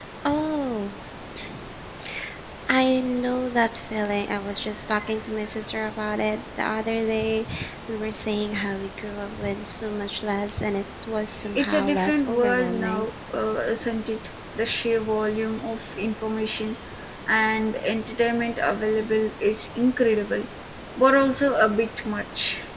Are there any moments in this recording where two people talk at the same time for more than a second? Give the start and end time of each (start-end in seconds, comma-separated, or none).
11.6-13.1